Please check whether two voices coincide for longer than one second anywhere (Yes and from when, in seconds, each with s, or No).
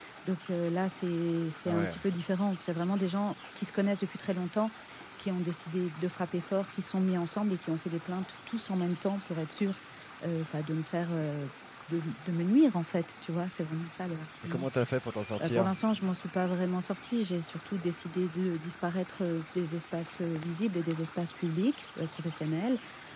No